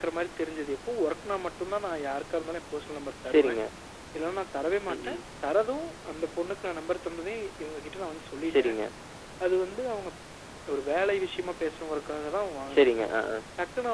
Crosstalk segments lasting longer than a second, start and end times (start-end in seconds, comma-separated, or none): none